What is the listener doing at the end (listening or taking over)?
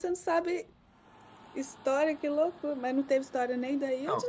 taking over